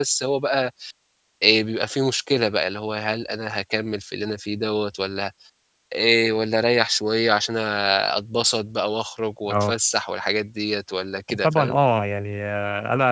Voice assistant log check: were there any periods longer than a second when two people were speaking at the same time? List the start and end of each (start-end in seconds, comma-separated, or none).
none